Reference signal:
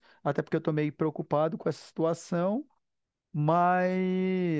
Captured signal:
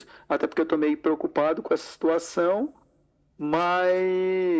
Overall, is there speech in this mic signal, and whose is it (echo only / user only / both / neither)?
echo only